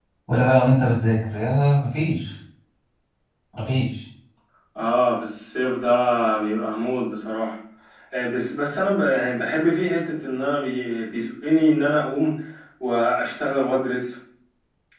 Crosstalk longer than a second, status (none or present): none